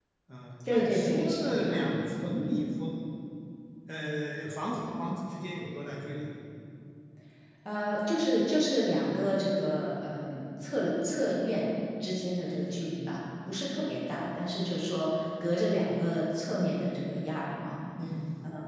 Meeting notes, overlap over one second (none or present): present